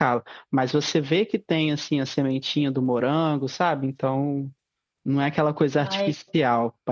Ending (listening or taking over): listening